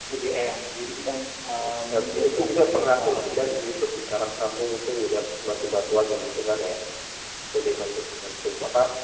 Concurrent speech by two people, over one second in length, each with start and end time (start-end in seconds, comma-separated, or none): 1.6-3.8